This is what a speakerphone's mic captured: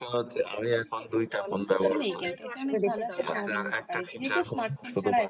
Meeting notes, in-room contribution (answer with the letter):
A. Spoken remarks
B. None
A